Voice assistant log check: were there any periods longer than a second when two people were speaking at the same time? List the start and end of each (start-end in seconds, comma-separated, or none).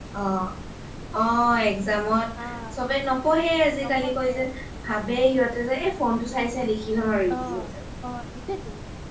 none